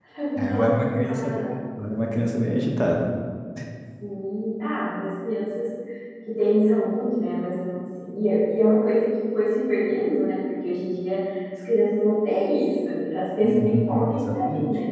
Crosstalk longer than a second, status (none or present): present